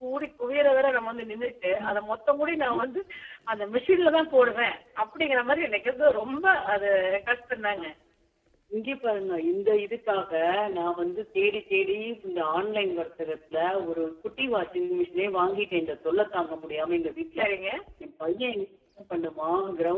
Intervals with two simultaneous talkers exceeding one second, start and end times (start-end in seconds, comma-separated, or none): none